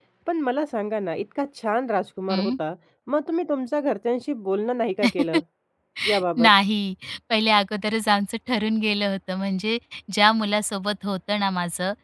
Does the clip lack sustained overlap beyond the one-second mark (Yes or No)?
Yes